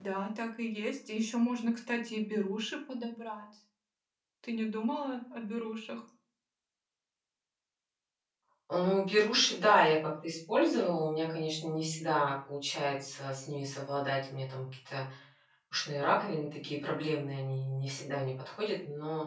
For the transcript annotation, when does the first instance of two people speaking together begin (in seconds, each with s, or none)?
none